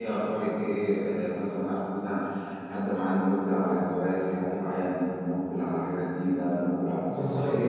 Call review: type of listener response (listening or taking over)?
listening